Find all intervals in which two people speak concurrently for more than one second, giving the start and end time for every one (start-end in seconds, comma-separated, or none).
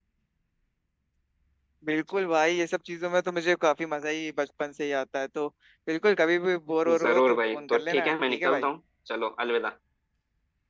7.0-8.7